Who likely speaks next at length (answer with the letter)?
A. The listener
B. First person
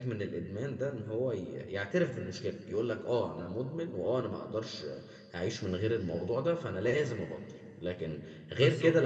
B